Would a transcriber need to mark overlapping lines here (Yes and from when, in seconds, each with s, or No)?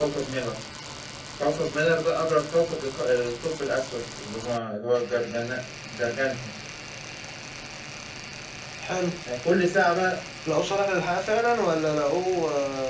No